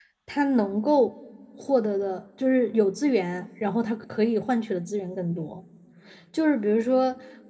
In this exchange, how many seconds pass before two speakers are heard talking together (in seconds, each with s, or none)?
none